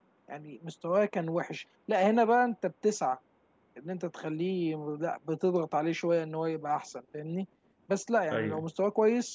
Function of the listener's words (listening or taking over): listening